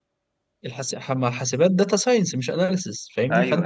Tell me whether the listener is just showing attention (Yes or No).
Yes